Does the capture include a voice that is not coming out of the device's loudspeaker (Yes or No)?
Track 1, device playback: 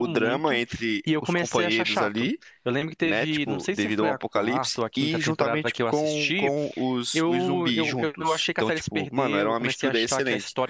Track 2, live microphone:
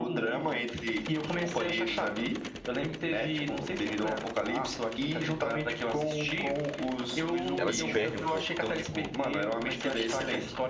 Yes